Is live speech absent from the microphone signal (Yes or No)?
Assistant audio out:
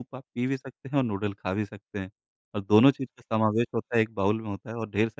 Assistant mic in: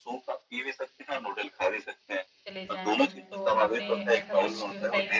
No